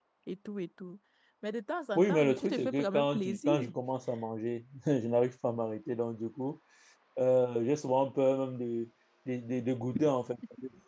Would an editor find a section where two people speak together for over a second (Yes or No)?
Yes